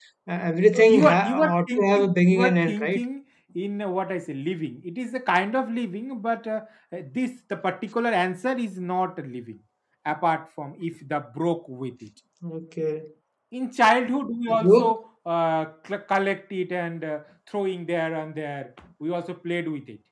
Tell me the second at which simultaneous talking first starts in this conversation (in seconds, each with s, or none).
0.7 s